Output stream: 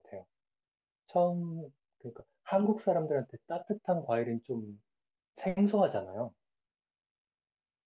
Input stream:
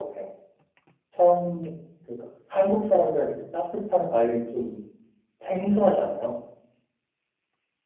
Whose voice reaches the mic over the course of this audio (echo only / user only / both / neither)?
echo only